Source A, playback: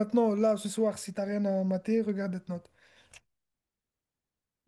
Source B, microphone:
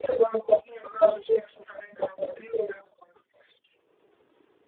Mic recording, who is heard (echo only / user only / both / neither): echo only